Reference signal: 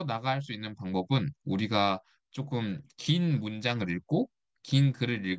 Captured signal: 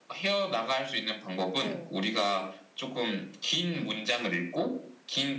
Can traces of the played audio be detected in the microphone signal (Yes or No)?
Yes